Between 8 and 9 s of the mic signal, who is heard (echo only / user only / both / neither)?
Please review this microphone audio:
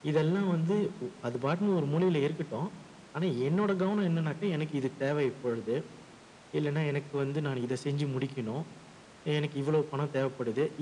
echo only